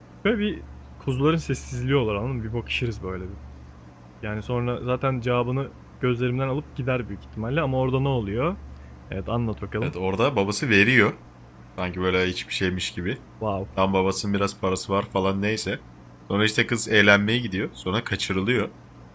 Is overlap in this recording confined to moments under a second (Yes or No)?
Yes